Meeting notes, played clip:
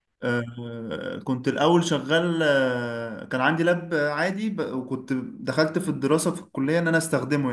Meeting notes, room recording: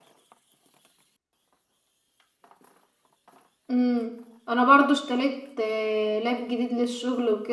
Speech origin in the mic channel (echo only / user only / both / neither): user only